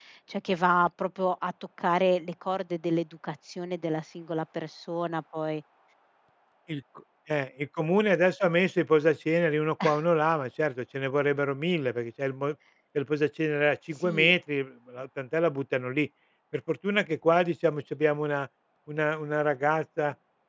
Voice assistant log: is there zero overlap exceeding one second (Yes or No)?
Yes